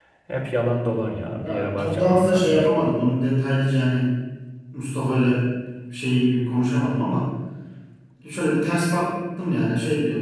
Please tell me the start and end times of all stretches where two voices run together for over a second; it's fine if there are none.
1.4-2.7

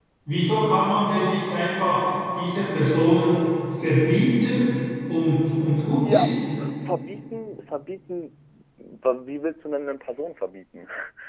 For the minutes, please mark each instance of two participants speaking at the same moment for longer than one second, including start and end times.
none

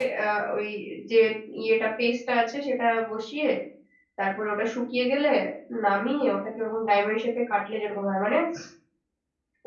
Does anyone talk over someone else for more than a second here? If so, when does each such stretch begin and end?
none

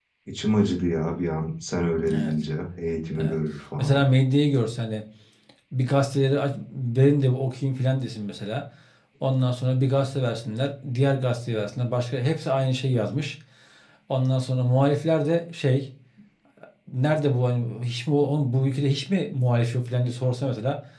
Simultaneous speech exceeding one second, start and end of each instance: none

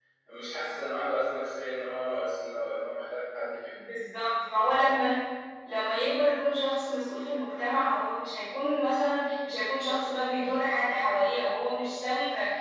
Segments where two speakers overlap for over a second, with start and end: none

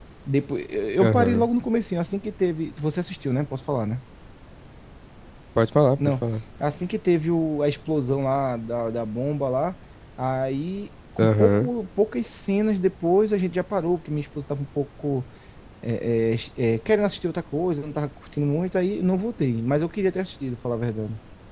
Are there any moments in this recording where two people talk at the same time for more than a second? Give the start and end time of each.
none

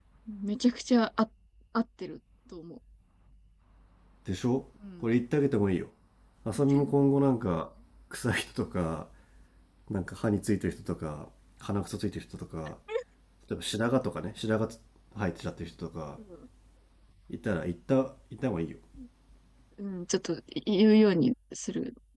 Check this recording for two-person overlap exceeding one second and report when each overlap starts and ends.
none

